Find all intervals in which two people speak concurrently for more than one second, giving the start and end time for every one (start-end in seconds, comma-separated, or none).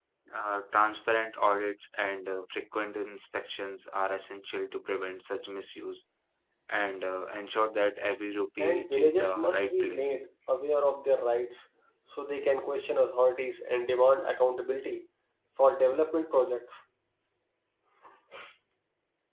8.6-10.2